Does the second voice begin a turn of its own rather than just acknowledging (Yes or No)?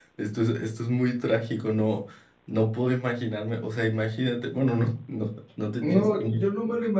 Yes